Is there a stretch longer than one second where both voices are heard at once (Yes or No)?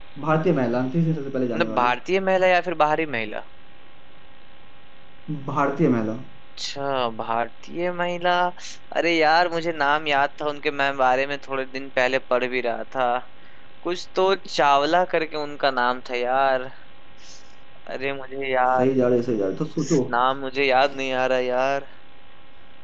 No